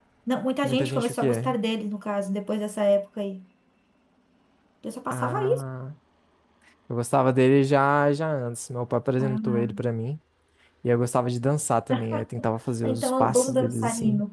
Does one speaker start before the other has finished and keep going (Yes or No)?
Yes